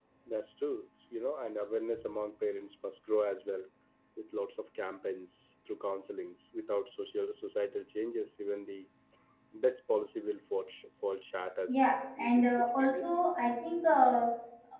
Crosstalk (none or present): present